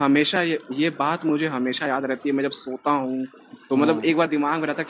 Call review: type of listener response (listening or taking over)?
listening